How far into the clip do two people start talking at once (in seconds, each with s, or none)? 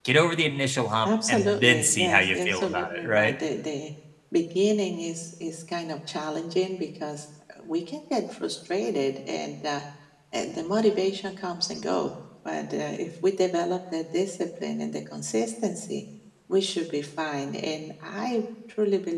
1.0 s